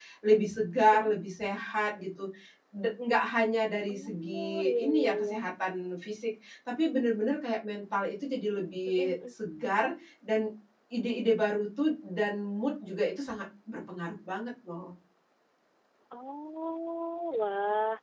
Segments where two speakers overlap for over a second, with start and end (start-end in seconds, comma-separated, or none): 3.9-5.4